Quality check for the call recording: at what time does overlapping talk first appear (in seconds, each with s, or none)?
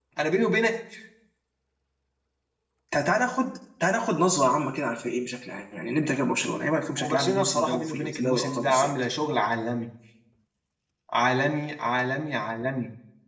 7.0 s